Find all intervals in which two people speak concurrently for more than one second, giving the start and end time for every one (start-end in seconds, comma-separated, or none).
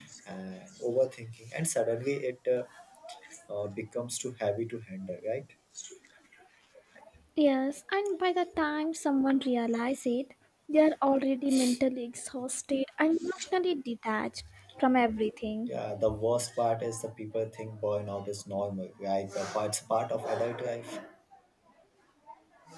none